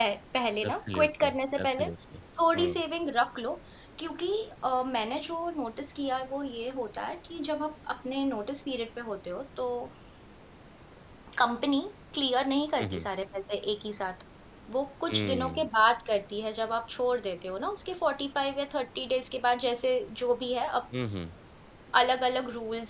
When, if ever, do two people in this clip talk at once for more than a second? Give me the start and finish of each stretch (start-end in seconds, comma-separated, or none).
0.6-1.9